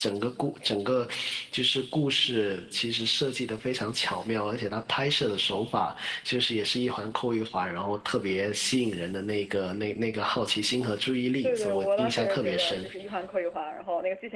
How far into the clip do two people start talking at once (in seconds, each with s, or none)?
11.4 s